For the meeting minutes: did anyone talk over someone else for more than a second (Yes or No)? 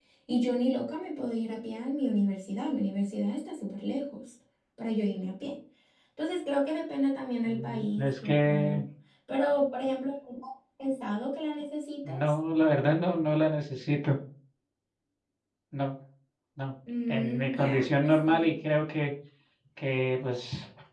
Yes